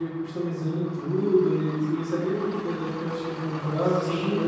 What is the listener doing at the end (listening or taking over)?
taking over